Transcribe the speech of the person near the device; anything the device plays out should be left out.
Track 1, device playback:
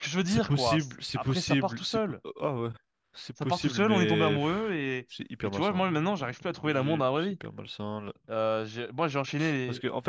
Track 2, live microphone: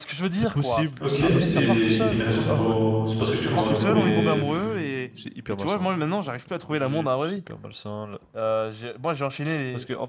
Ok, et il y a une raison pour, c'est parce que je t'ai convaincu ou?

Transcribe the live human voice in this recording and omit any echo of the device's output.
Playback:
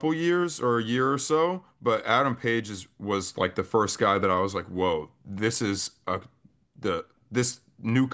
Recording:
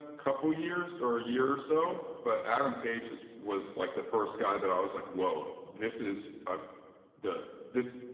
none

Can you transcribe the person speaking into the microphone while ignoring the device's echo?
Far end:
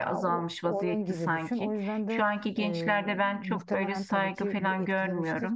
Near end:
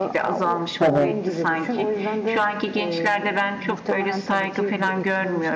Tabii.

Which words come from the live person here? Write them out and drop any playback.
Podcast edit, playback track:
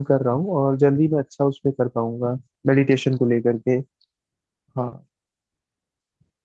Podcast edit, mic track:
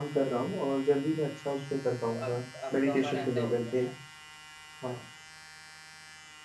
तो आप अब तो हमारा ऐसा होता है ना

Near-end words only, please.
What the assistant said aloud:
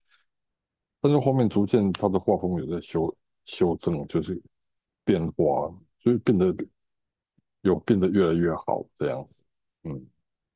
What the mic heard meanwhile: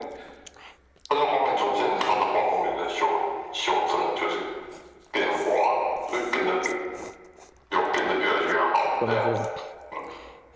怎么说？

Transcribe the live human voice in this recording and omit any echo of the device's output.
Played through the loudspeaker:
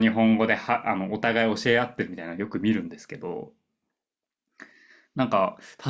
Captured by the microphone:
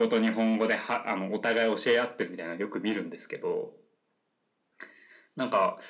none

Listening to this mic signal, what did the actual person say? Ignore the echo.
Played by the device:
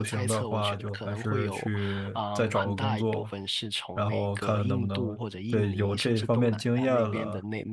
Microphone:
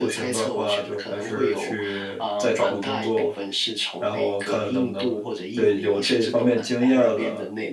none

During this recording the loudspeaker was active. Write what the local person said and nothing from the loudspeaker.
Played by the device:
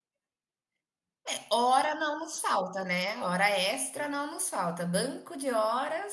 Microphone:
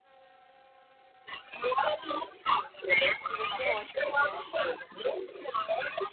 E vai ser ótima essa viagem.

